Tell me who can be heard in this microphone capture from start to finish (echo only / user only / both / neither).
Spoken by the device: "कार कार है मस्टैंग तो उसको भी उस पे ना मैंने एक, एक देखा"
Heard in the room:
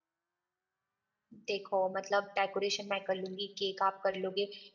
user only